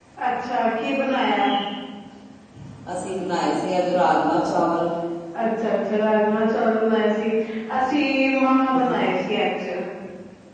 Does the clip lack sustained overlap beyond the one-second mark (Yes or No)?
Yes